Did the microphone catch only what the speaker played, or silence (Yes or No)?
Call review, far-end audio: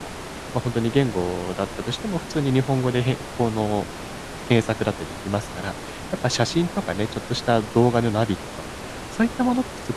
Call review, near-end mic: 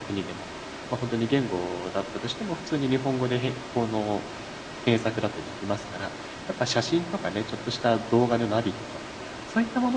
Yes